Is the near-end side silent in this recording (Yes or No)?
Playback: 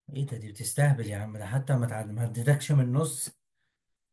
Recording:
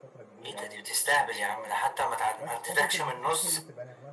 No